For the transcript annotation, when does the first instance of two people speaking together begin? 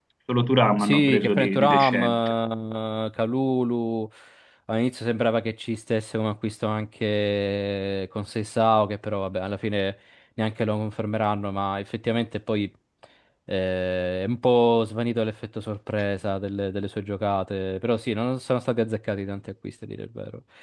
0.8 s

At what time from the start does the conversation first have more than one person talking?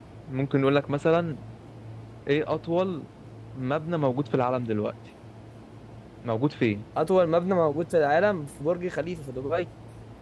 none

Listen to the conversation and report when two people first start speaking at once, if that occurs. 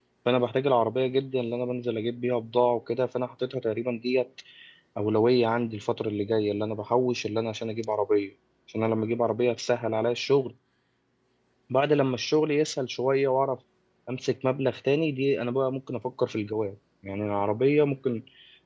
none

